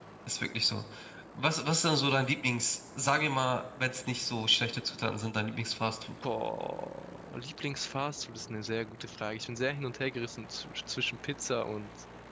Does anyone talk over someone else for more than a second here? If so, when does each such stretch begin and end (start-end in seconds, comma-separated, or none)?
none